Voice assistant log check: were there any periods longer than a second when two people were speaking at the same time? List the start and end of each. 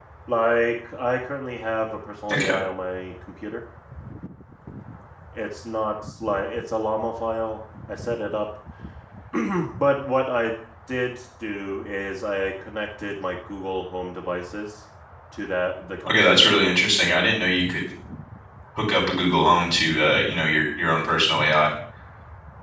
16.0-17.3

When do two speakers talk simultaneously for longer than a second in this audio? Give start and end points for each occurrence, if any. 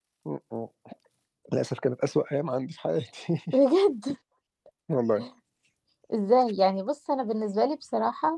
none

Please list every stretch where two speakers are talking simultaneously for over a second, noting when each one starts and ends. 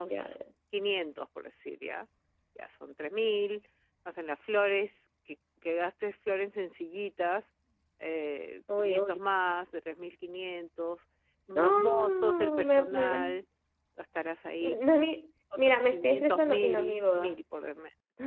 11.6-13.4, 15.6-17.4

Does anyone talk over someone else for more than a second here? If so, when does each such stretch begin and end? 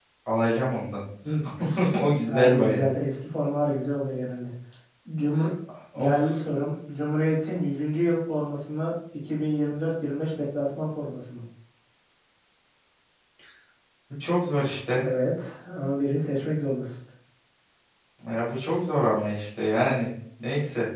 none

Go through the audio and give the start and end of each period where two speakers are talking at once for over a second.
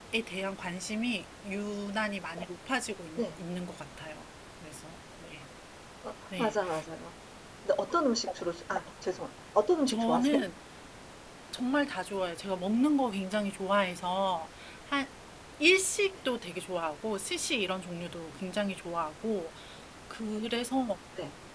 none

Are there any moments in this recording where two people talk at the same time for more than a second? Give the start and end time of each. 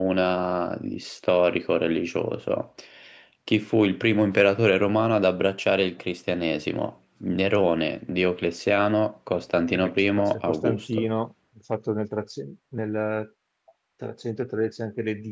9.7-11.1

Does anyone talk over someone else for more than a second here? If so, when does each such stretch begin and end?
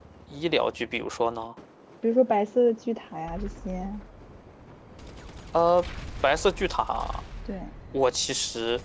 none

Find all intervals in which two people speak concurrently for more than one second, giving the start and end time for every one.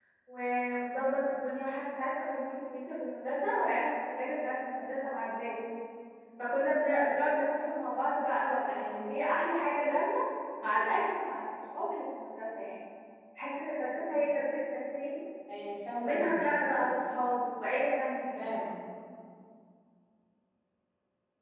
none

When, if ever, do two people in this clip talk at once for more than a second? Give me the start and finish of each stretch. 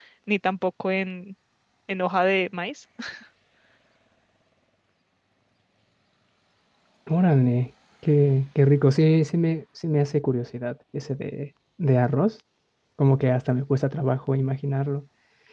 none

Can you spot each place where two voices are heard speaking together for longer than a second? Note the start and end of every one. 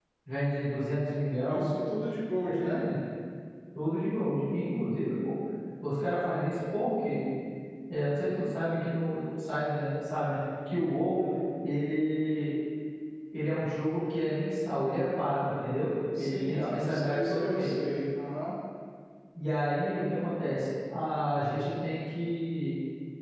16.2-17.7

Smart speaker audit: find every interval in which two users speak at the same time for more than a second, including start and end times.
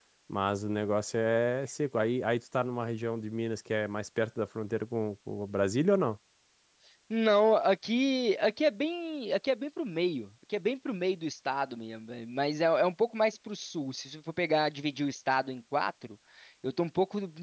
none

